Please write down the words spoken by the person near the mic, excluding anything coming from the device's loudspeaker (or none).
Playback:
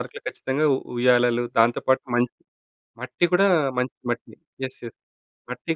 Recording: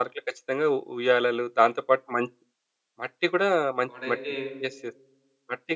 వాడైతే